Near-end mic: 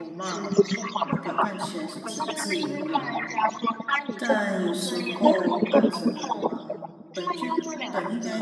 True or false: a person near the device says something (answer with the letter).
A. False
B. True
B